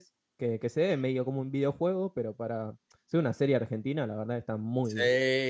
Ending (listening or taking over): taking over